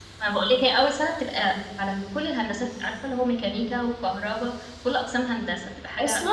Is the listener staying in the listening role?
No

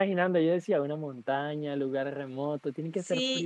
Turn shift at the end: Yes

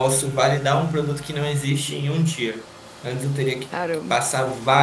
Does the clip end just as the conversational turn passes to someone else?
No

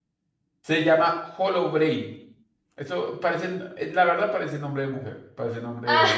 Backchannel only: Yes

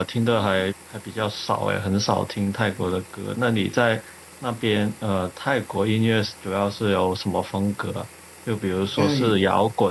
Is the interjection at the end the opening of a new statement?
No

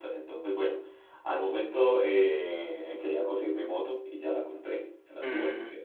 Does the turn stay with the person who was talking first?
Yes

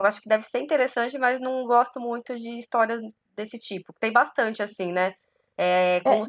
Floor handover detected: No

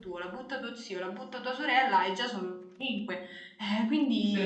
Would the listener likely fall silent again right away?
No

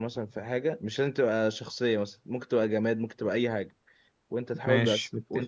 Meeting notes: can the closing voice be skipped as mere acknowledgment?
Yes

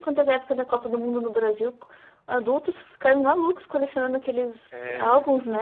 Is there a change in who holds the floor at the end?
No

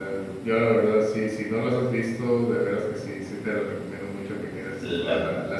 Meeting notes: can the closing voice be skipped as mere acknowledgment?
Yes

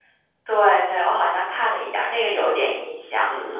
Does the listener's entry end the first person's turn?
Yes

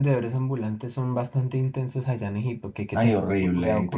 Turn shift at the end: Yes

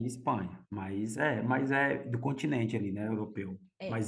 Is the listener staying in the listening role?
Yes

